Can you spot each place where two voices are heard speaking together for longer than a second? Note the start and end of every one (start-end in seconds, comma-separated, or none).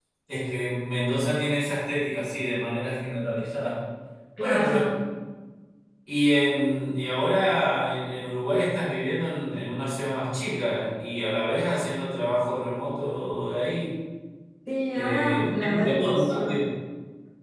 14.9-16.6